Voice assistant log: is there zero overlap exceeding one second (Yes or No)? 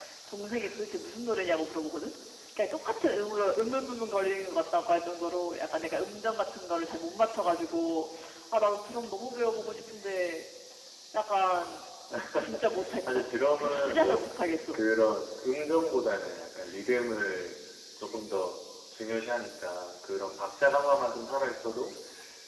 No